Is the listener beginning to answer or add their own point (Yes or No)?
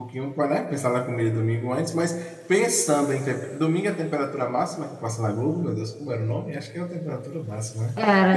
No